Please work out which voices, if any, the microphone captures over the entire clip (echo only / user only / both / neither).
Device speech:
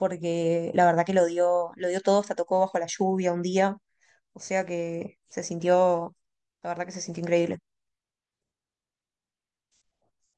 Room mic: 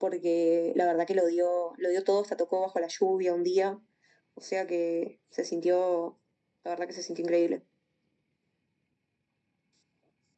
echo only